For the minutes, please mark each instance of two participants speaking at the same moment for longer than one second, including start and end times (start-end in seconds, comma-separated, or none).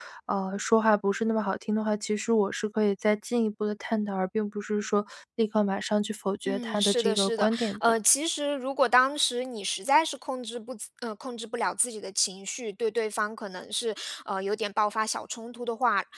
6.4-7.8